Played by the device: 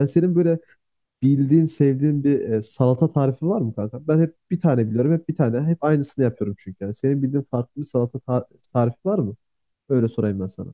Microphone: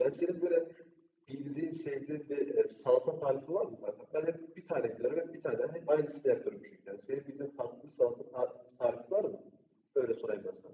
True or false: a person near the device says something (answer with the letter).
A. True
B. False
B